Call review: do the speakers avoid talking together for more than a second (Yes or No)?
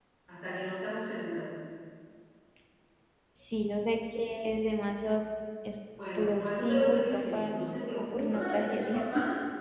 No